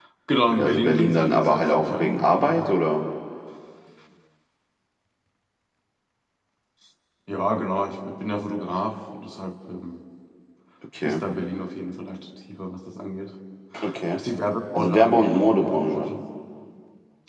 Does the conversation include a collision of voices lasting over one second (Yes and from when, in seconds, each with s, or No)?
Yes, from 0.5 s